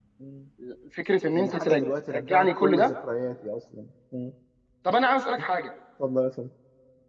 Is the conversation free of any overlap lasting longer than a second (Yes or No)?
No